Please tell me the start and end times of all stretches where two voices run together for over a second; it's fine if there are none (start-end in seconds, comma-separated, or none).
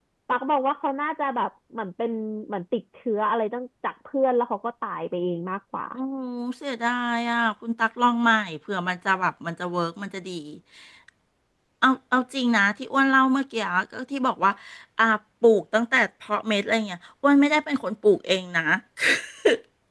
none